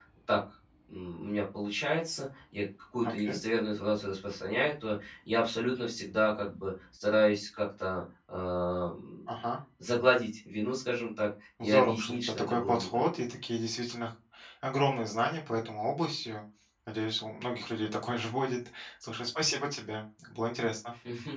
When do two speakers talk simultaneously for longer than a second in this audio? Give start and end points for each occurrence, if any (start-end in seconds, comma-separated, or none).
11.6-13.0